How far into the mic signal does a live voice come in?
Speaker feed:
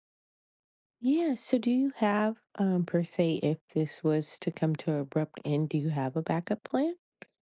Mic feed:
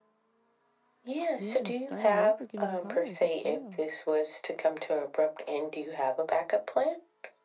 1.4 s

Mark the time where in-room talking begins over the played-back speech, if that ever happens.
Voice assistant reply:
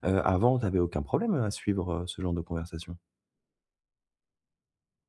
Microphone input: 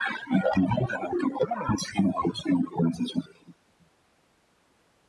none

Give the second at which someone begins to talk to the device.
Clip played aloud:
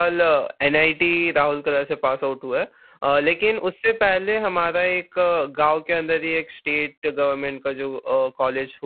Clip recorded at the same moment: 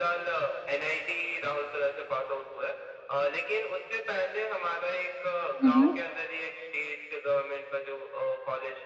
5.6 s

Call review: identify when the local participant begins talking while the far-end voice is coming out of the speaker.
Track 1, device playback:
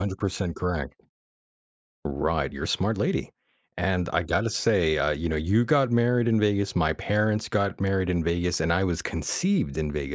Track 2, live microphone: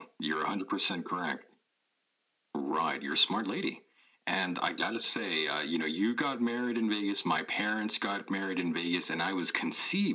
none

